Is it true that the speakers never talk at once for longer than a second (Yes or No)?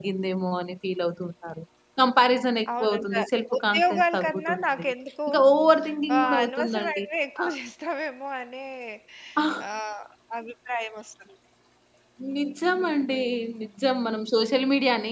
No